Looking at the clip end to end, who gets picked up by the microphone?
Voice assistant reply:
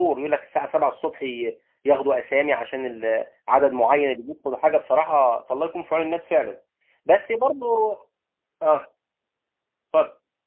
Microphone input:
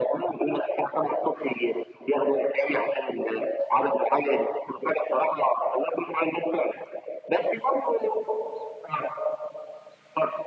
echo only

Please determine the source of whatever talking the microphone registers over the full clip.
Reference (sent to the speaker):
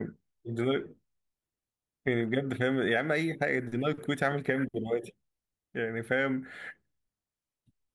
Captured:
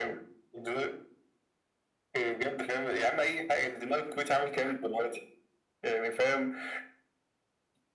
echo only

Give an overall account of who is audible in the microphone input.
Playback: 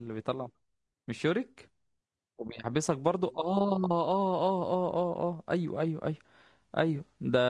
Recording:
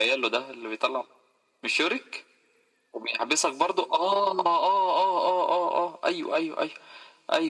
echo only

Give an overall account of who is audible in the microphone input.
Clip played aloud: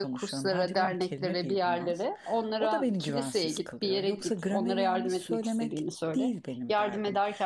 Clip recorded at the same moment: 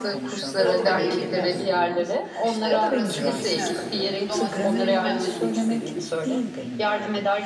both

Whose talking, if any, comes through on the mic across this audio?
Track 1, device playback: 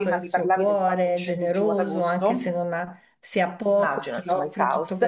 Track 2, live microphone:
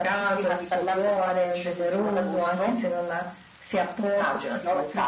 echo only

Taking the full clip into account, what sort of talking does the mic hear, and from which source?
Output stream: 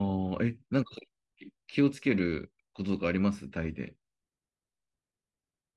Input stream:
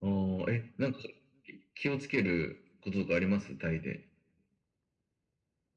echo only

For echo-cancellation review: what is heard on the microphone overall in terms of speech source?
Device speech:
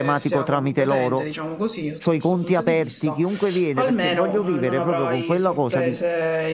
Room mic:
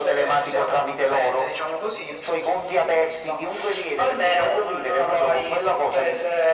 echo only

